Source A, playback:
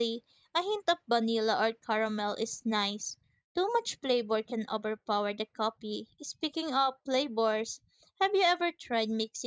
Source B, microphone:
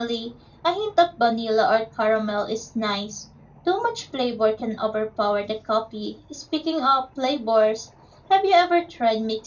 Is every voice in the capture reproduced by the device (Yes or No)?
Yes